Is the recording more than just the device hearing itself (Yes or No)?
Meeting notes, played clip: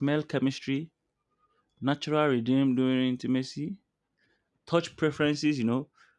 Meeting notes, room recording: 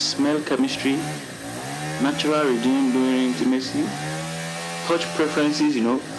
No